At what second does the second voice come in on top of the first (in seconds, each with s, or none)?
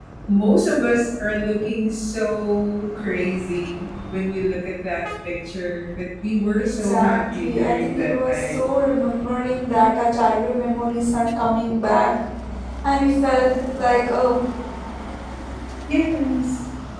6.6 s